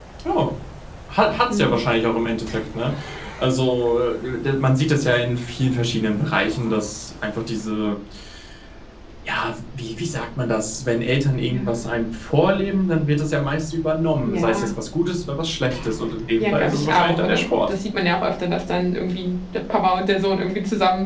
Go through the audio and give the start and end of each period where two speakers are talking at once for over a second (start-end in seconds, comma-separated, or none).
16.4-17.7